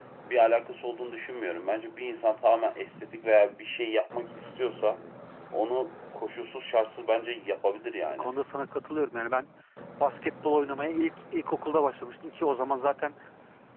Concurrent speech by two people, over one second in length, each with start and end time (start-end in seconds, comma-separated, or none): none